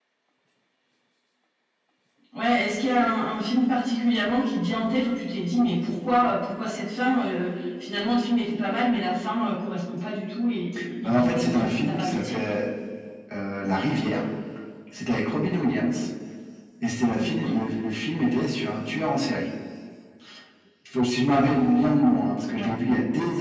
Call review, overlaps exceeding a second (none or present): present